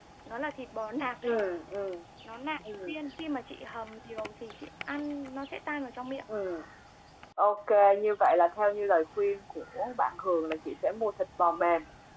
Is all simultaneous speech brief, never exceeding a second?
Yes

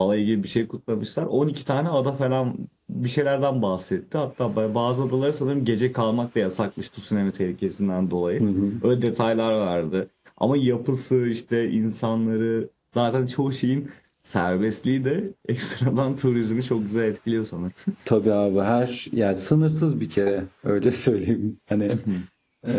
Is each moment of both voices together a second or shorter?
Yes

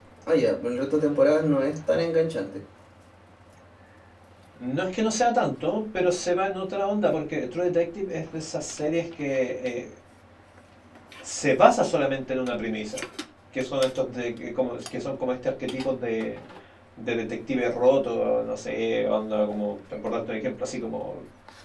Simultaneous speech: No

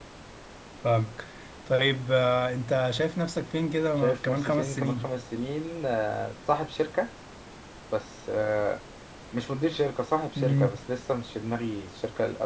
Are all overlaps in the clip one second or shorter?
No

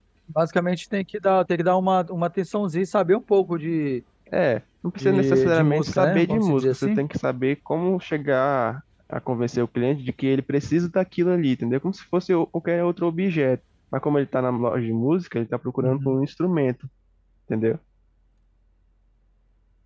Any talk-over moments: Yes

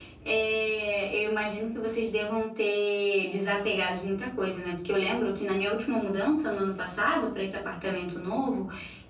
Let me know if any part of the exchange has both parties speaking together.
No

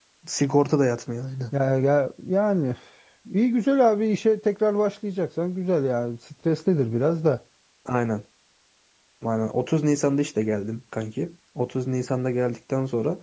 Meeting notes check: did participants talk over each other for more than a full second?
No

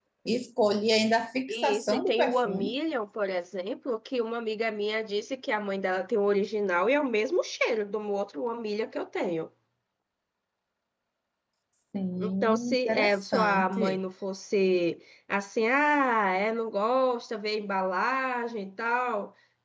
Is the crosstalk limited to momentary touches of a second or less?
No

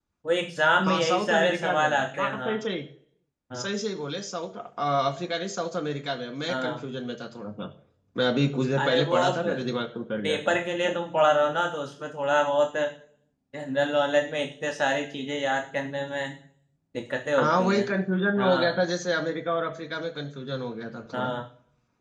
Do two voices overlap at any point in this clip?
Yes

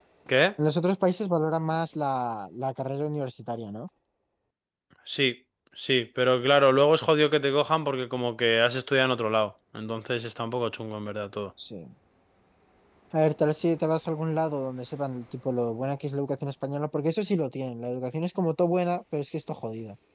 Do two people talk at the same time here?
No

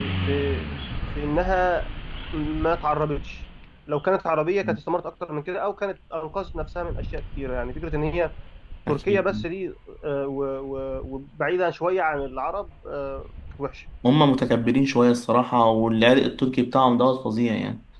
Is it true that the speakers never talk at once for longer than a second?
Yes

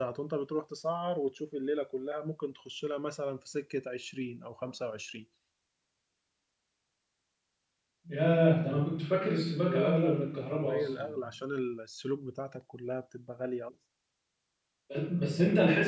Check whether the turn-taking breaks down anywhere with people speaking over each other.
Yes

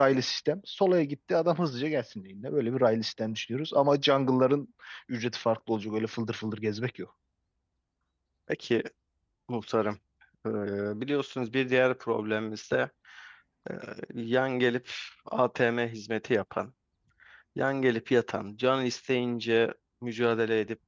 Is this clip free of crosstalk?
Yes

